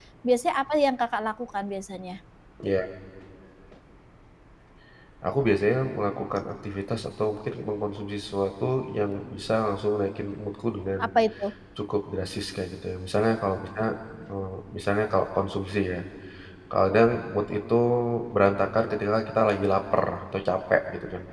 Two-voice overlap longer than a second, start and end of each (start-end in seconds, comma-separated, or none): none